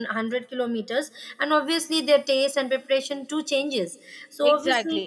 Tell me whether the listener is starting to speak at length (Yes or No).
Yes